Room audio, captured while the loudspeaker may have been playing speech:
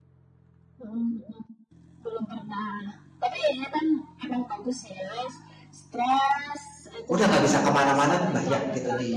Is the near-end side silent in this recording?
No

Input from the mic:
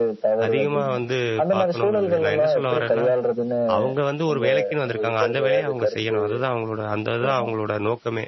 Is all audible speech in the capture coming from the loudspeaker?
No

